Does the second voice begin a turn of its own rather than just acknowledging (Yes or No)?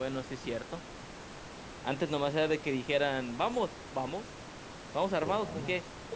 No